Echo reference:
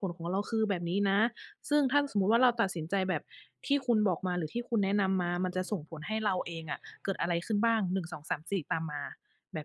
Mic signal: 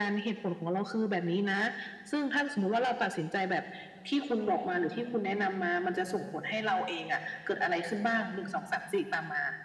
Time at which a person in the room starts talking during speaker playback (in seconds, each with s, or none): none